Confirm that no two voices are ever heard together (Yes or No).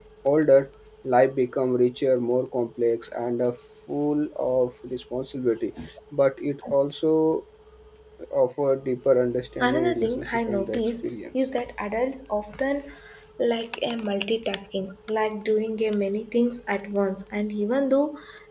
No